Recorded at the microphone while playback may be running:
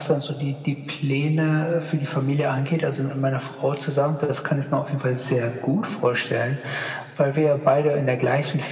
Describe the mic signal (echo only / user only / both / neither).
echo only